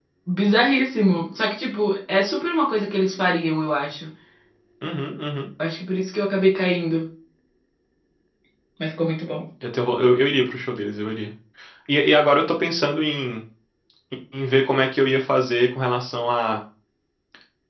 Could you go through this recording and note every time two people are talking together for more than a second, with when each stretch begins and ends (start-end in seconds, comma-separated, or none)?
none